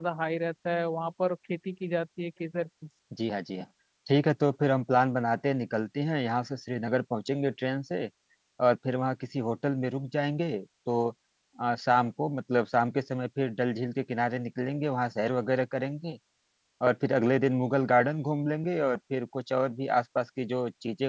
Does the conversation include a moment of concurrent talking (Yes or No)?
No